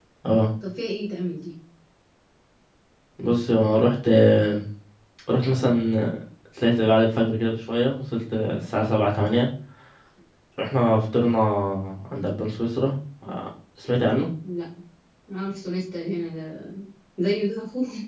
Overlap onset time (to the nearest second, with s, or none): none